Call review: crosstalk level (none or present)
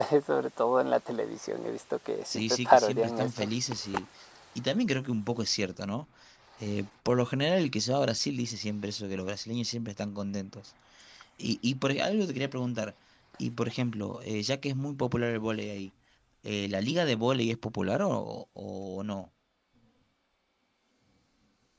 present